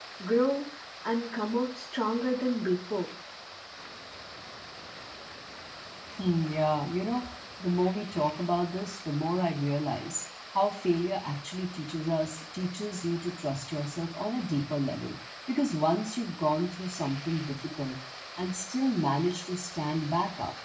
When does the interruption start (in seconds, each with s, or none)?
none